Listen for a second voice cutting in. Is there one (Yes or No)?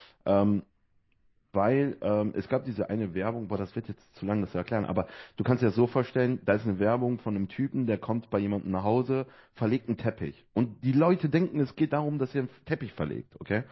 No